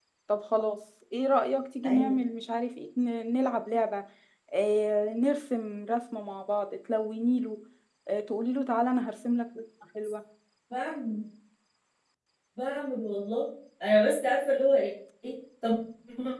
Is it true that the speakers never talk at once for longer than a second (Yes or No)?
Yes